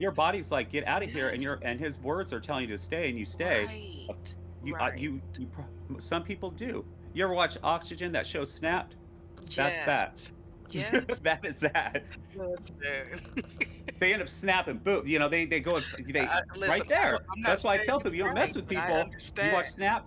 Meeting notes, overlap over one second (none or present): present